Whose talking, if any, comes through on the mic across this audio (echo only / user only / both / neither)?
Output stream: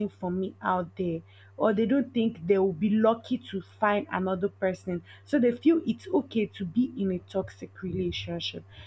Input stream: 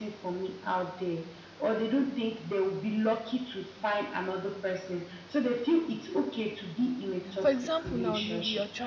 both